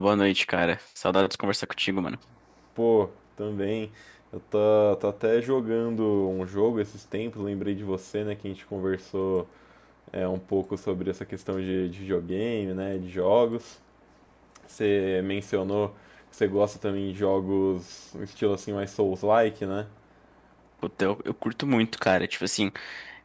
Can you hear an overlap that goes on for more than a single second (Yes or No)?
No